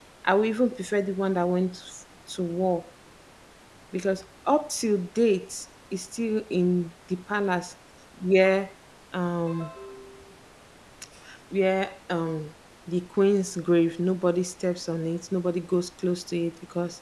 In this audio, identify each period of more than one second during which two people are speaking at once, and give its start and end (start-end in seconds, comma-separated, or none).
none